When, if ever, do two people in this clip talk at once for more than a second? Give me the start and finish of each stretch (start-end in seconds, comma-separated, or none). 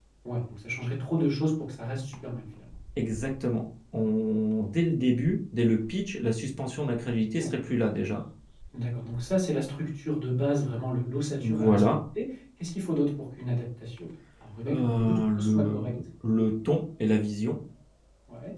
14.7-15.9